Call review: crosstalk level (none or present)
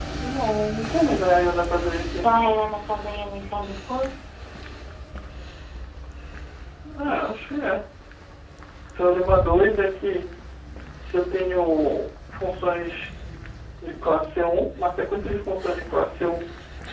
none